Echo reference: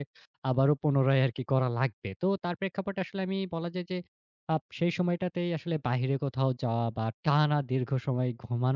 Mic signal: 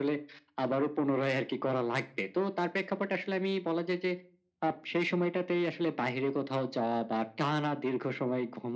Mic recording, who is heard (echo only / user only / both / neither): echo only